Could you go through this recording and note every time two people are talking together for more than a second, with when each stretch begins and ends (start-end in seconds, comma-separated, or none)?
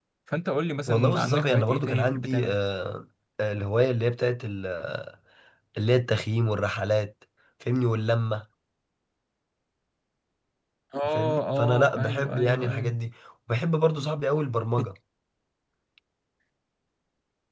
0.9-2.5, 11.1-12.9